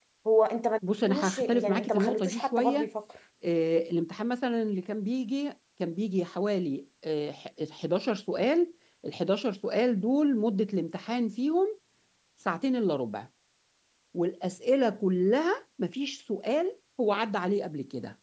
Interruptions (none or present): present